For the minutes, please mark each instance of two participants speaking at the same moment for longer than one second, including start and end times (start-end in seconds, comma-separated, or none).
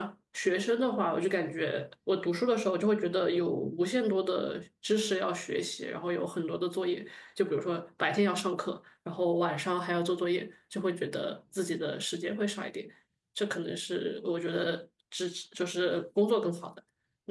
none